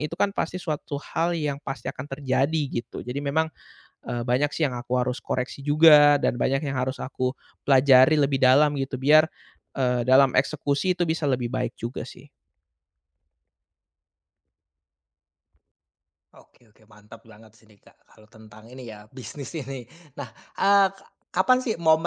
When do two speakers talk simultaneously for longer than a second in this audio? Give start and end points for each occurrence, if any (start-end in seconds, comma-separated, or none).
none